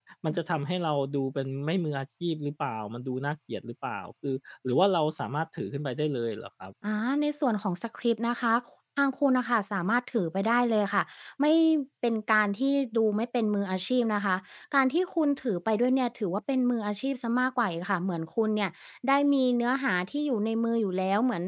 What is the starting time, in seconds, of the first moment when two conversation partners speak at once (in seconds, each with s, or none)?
none